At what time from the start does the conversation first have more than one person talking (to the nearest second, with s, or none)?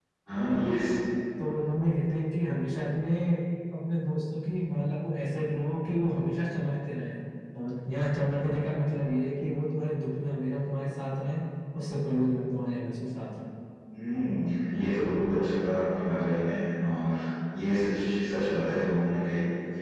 none